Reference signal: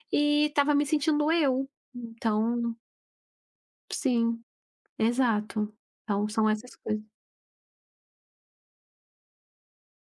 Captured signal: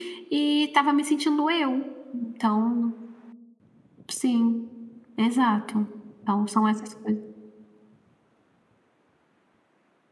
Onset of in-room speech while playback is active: none

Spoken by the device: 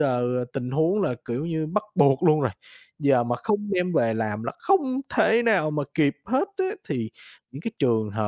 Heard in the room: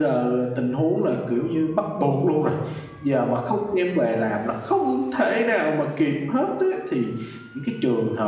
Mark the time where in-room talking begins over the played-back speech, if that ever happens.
none

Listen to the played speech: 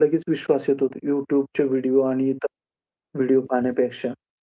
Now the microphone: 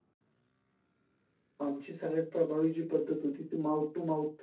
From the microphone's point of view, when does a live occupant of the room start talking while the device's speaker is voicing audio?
2 s

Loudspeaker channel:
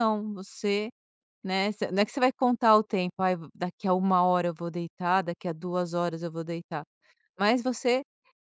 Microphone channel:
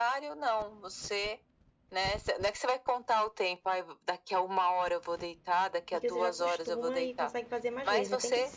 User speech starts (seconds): 6 s

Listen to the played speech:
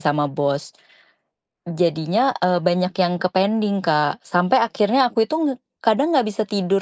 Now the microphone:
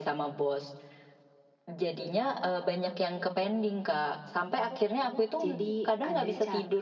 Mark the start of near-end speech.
5 s

